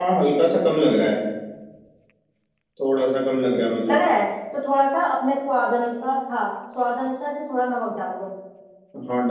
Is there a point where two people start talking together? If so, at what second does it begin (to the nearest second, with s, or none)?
none